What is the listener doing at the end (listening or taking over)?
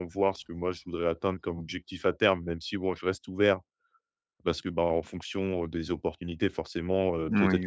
listening